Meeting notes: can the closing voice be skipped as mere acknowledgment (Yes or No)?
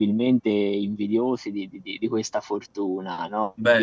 Yes